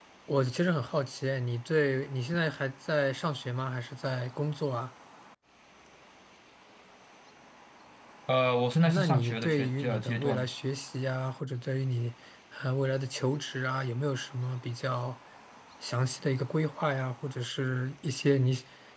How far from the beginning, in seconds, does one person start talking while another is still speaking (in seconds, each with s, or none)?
8.8 s